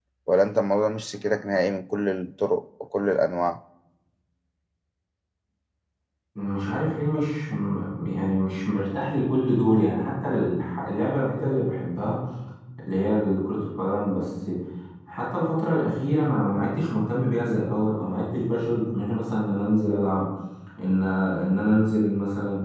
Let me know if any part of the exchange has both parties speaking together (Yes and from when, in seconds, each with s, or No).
No